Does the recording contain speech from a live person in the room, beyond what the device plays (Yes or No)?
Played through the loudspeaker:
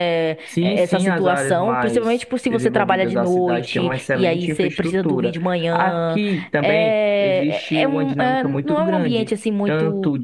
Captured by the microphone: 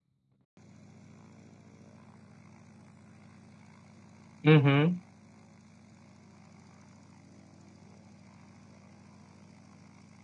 Yes